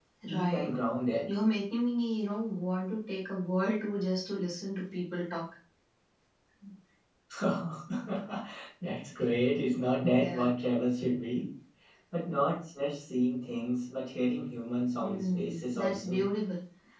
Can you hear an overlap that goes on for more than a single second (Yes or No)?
Yes